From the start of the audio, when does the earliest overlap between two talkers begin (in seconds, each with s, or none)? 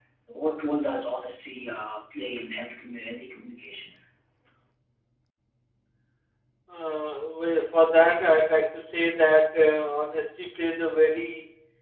none